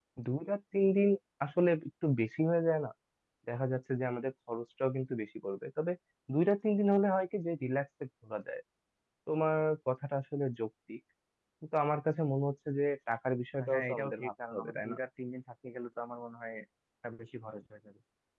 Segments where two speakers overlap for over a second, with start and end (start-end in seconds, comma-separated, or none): 13.7-15.0